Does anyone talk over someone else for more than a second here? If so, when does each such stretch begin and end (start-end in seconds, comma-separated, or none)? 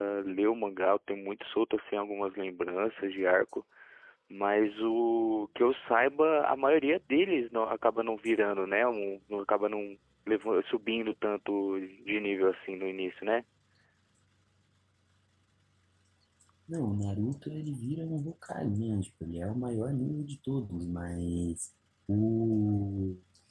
none